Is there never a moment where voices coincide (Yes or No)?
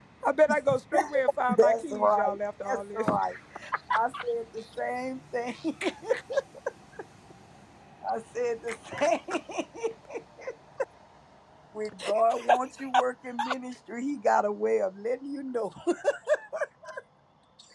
No